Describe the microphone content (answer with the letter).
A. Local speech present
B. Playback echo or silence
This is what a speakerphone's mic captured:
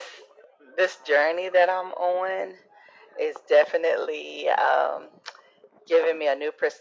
B